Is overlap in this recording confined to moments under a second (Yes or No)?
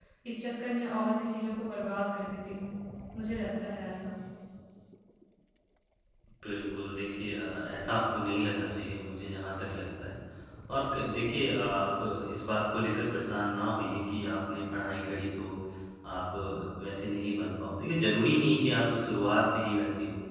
Yes